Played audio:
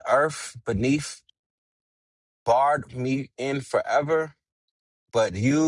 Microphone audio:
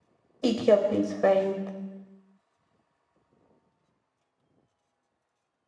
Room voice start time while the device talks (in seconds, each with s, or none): 0.4 s